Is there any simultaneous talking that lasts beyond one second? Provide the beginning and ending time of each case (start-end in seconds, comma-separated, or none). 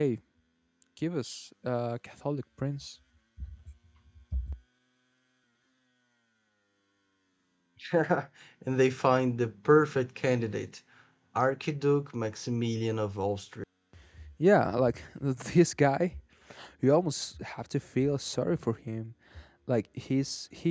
none